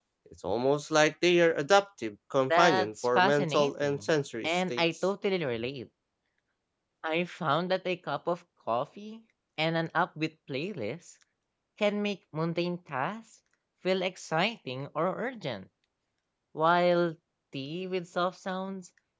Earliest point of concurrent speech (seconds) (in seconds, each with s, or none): 2.5 s